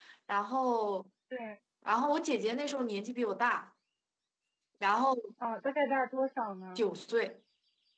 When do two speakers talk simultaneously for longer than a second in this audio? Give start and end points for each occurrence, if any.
none

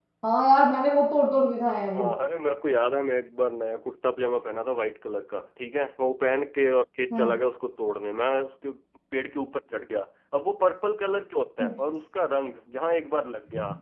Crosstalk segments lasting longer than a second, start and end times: none

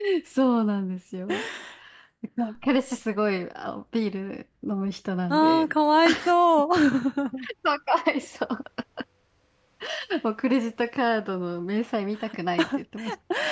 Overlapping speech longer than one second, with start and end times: none

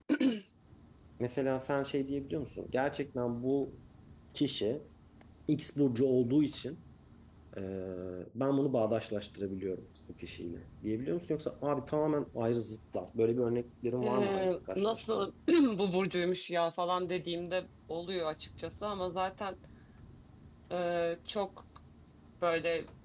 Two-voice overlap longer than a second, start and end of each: 14.0-15.3

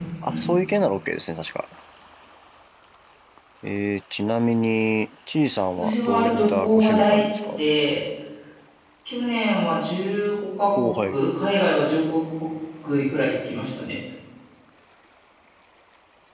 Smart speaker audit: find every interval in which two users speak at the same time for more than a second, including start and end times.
5.8-7.6

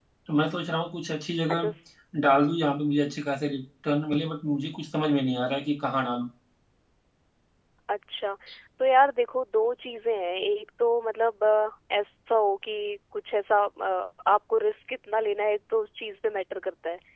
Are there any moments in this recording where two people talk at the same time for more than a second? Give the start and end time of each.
none

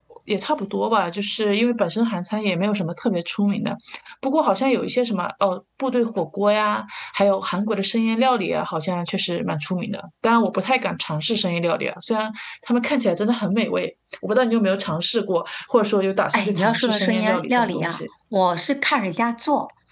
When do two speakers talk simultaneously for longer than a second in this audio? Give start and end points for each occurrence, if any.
16.3-18.0

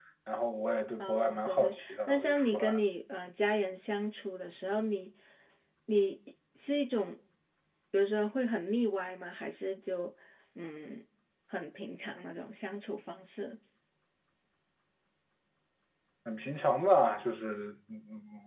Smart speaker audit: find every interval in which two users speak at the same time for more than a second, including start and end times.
1.0-2.8

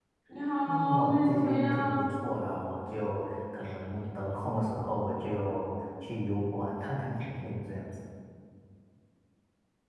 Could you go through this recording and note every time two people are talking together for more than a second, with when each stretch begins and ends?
0.7-2.0

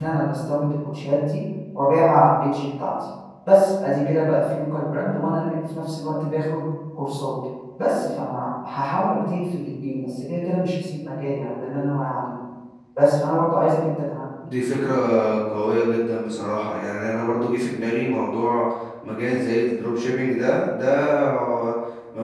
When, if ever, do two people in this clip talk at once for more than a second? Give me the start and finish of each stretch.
none

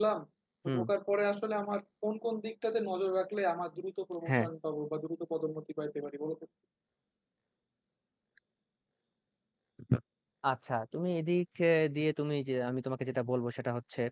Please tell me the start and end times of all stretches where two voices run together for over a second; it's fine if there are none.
none

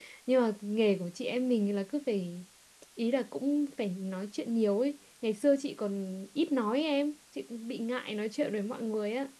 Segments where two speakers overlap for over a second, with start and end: none

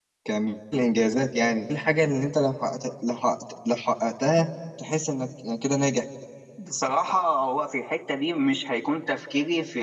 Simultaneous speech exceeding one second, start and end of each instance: none

